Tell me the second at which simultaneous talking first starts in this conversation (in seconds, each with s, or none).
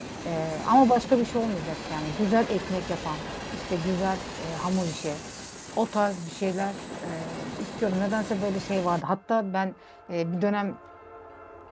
none